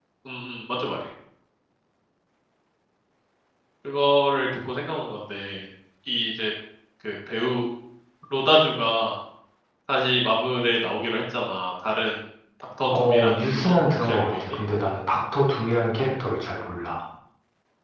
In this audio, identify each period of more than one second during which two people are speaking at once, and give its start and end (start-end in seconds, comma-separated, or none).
12.9-14.3